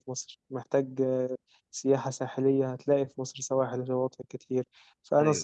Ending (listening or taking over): listening